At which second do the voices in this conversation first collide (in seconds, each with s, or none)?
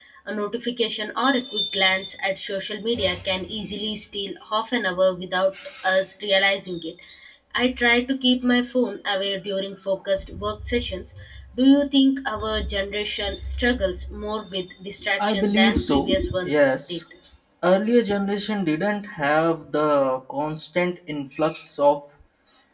15.2 s